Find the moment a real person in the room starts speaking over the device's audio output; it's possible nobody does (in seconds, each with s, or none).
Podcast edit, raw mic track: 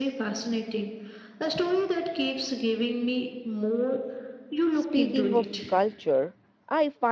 4.7 s